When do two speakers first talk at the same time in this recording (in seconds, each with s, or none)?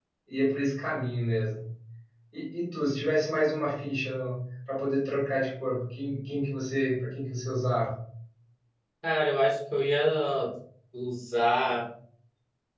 none